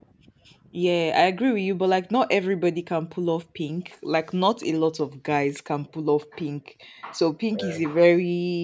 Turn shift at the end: No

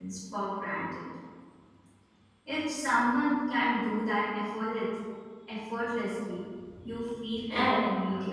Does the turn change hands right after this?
Yes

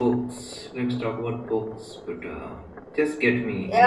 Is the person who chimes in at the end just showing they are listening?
No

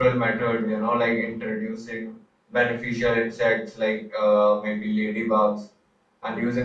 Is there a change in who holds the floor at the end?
No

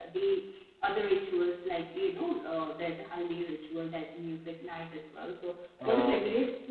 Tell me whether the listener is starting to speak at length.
No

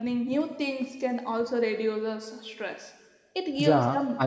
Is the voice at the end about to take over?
Yes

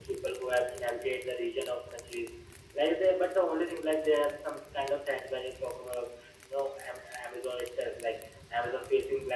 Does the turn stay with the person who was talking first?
Yes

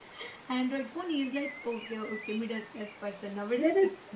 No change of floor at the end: No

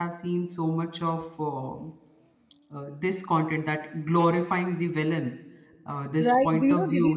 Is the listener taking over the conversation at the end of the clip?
Yes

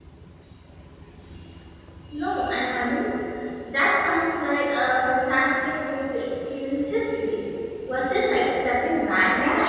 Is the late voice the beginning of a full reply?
Yes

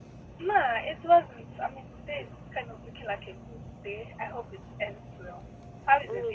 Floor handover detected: Yes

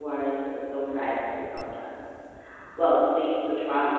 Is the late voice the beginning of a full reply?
No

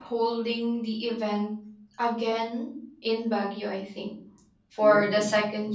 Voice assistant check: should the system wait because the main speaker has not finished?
Yes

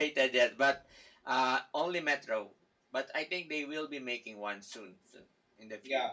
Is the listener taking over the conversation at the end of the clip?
Yes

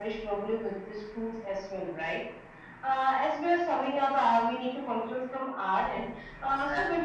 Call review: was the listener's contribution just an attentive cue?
Yes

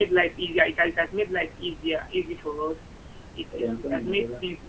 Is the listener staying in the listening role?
Yes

